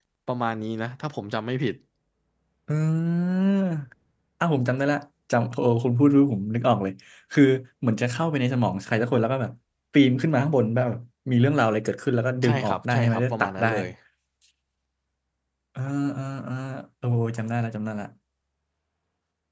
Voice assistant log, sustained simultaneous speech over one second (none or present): present